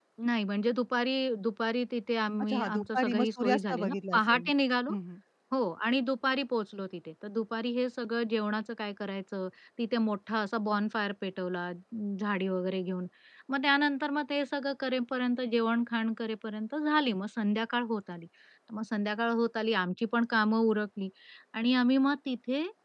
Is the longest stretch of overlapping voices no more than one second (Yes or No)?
No